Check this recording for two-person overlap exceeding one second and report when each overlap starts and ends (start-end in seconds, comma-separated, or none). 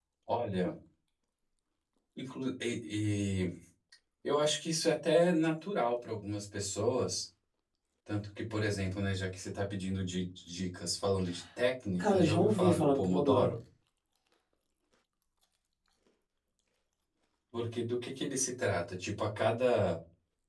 12.0-13.5